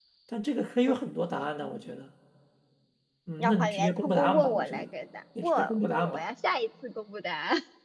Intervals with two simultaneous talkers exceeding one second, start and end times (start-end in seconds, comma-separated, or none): 3.4-4.9